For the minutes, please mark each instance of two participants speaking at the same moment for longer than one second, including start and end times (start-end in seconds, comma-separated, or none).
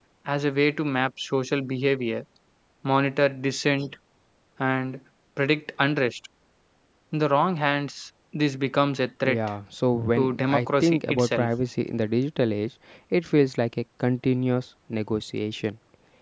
10.1-11.5